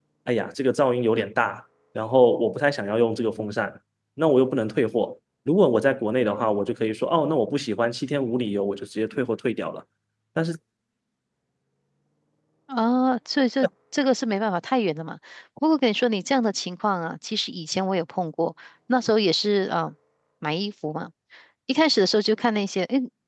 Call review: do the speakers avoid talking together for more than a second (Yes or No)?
Yes